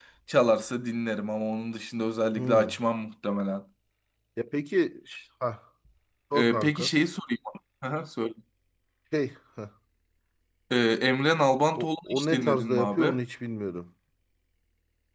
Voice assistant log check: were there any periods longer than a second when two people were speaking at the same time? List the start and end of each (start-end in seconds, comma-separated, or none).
11.8-13.2